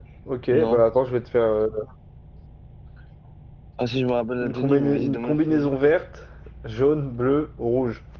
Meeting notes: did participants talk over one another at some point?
Yes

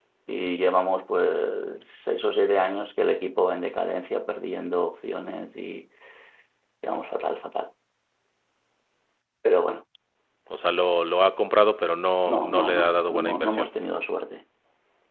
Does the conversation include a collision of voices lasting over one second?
Yes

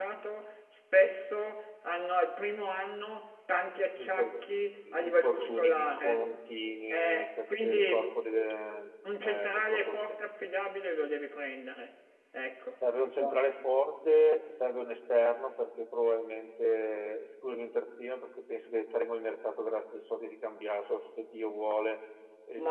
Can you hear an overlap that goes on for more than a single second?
Yes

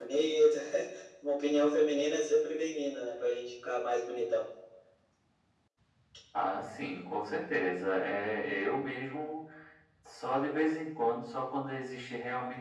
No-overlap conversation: Yes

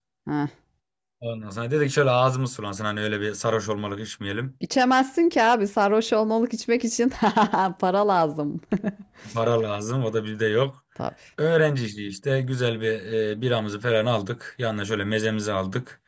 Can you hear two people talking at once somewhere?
No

